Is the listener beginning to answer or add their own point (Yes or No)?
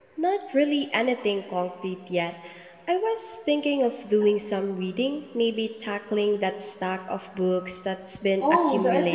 Yes